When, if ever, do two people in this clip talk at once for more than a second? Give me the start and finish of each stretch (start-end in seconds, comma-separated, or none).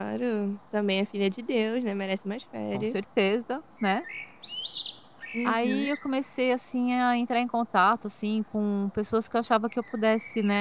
none